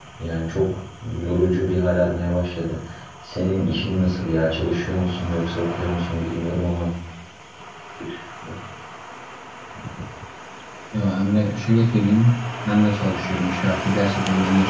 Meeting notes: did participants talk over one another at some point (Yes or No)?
No